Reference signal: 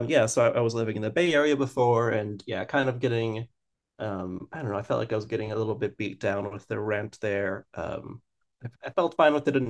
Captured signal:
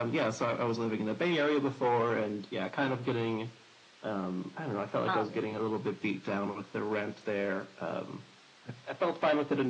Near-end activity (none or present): present